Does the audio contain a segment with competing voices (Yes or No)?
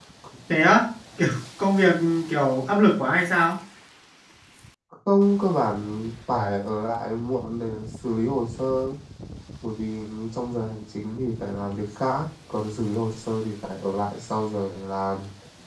No